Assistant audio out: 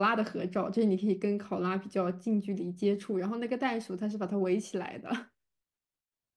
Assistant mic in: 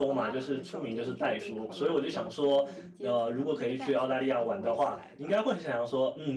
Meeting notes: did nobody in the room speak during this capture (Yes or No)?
No